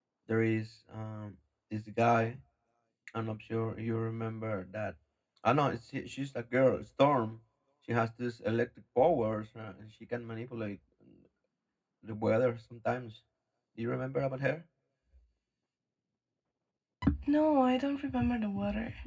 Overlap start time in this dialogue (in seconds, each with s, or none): none